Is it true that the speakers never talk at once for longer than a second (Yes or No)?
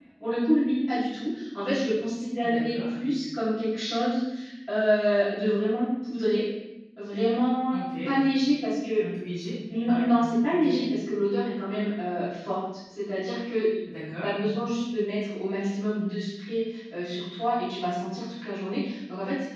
Yes